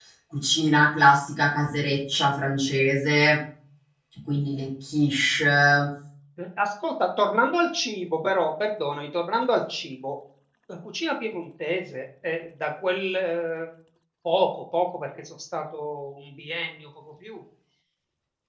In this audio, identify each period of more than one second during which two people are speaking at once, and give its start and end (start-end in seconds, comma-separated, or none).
none